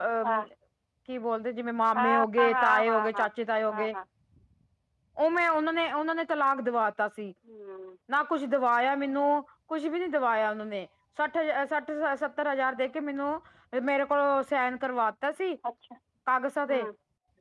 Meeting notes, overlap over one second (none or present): present